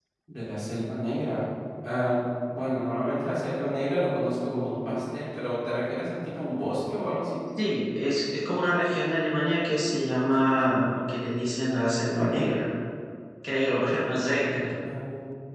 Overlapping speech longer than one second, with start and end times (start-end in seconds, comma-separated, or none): none